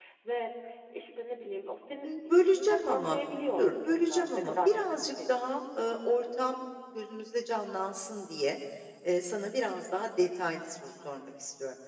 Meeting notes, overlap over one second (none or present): present